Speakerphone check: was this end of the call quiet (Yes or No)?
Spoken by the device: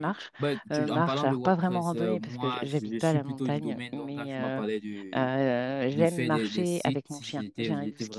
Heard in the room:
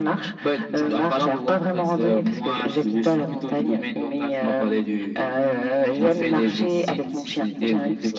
Yes